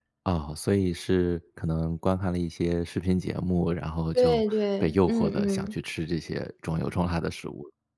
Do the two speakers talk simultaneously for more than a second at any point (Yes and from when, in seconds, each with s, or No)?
Yes, from 4.2 s